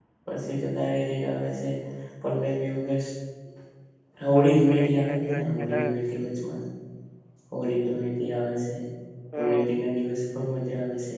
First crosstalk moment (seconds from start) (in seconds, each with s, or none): 4.4 s